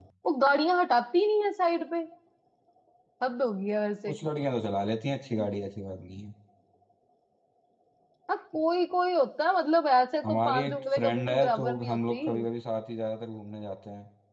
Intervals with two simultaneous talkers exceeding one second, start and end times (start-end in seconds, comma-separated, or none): 10.2-12.2